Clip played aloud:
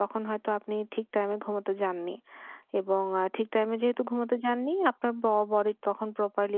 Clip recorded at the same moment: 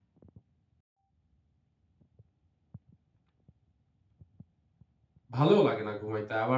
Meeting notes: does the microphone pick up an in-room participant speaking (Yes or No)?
Yes